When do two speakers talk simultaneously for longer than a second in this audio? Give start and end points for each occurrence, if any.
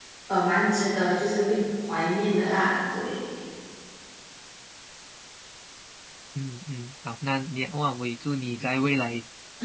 none

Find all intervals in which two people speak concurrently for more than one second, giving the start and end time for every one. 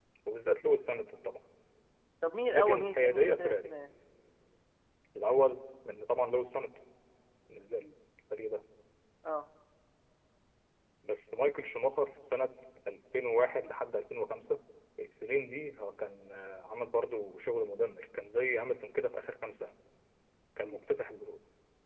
2.5-3.7

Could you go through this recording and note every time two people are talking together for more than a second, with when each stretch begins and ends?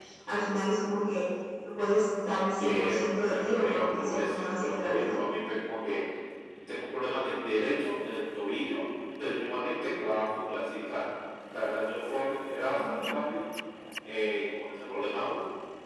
2.6-5.2

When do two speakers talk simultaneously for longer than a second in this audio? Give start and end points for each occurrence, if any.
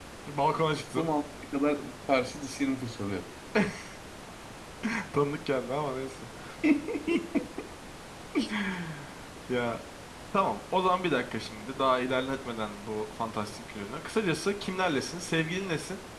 none

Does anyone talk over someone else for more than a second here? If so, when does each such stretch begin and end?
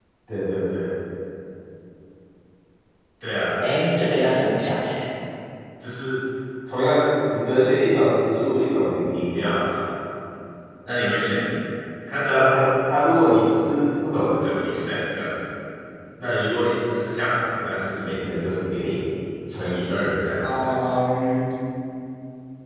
none

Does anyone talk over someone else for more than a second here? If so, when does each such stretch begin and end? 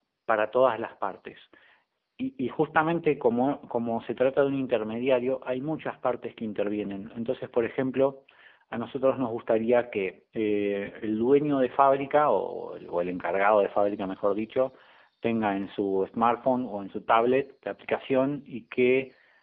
none

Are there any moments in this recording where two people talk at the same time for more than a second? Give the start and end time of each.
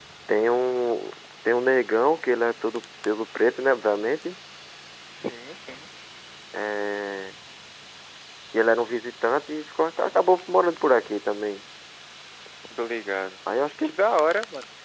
none

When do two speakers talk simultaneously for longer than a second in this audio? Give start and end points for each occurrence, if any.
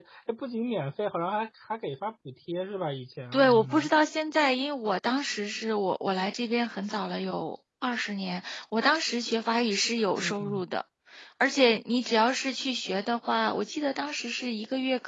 none

